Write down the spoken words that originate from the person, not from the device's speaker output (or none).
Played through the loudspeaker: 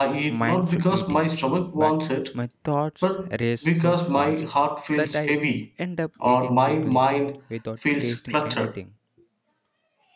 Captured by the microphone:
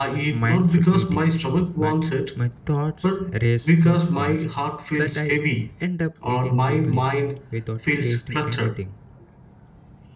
none